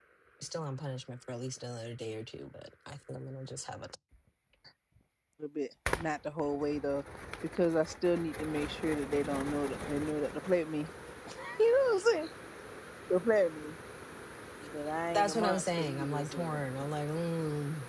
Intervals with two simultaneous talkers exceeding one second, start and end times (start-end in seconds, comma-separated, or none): 15.1-16.9